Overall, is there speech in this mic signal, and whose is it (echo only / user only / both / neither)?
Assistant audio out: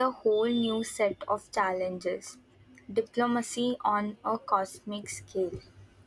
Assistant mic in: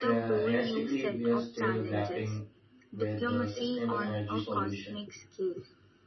both